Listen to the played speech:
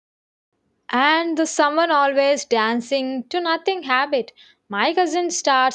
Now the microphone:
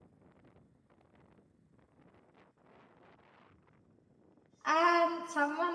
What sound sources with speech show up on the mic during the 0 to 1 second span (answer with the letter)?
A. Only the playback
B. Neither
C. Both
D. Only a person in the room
B